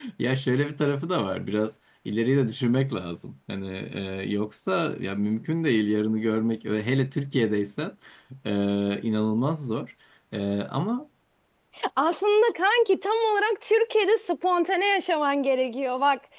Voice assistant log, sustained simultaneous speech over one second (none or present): none